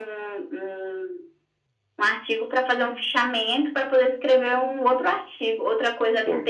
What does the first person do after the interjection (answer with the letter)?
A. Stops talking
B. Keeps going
B